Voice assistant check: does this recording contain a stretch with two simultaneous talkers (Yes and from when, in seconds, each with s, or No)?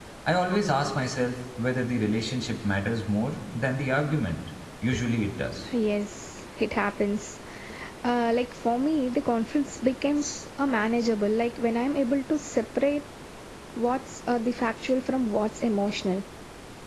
No